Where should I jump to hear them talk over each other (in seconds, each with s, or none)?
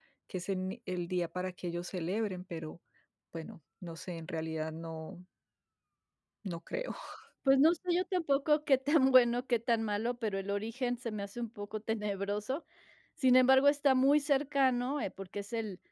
none